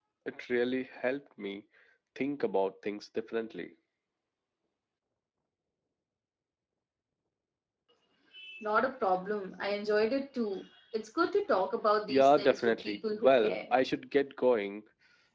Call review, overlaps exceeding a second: present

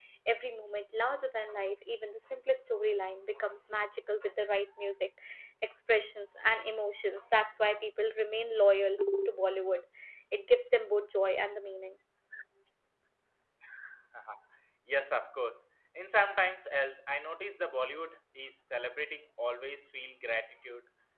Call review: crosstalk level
none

